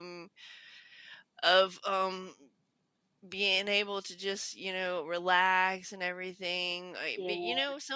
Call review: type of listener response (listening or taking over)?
listening